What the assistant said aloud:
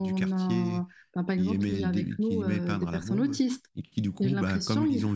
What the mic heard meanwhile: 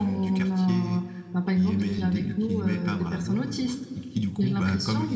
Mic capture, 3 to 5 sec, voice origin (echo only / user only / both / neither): echo only